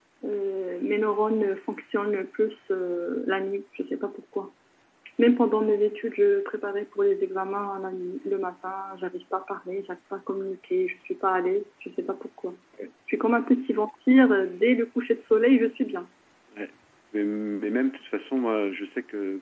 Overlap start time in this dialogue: none

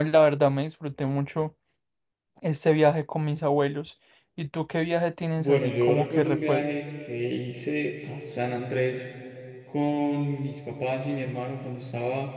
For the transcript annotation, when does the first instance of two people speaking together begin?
5 s

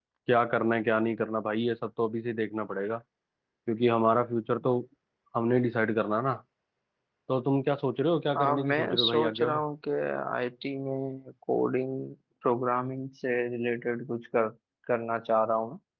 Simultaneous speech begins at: 8 s

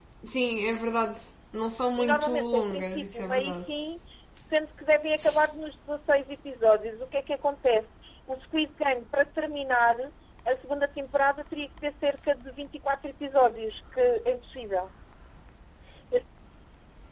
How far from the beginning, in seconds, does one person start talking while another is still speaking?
2 s

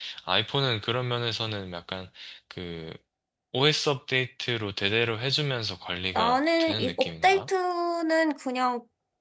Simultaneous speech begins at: 6 s

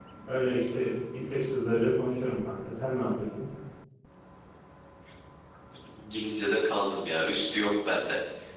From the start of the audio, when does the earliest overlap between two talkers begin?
none

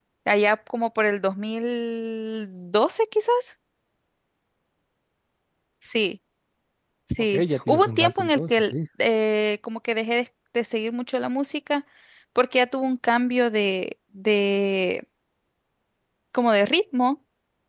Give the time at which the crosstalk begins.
7 s

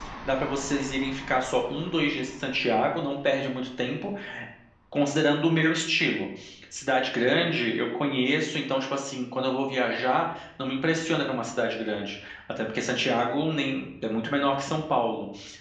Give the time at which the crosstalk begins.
none

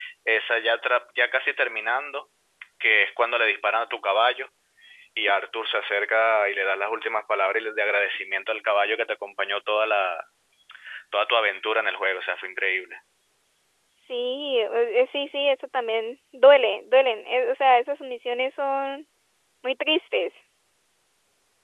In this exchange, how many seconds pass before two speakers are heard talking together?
none

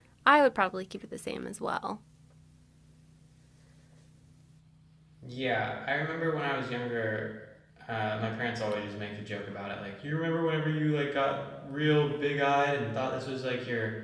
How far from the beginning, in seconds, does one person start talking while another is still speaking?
none

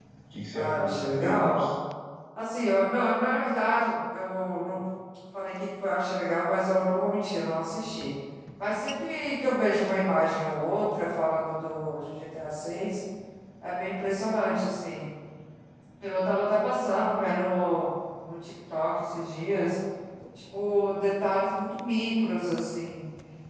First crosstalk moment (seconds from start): 1 s

